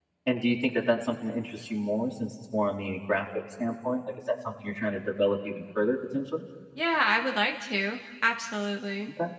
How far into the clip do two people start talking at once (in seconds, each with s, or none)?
none